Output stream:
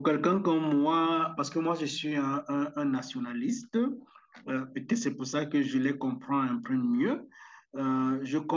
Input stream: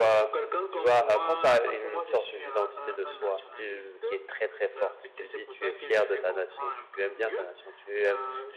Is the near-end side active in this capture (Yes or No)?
Yes